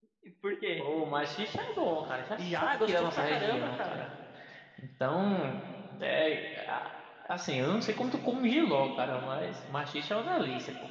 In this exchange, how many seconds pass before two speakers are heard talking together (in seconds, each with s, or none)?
2.4 s